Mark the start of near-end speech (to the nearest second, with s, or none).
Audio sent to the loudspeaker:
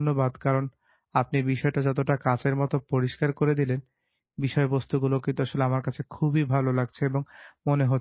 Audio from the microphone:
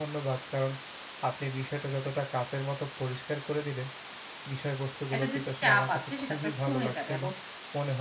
5 s